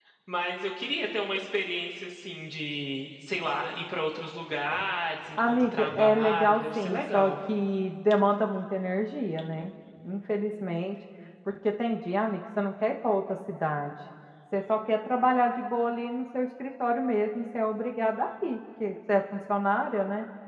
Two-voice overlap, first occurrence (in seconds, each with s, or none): 5.5 s